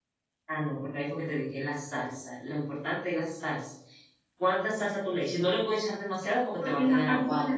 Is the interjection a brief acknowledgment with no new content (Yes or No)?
No